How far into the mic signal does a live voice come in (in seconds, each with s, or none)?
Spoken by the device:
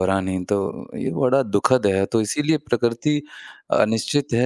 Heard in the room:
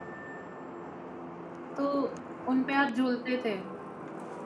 1.8 s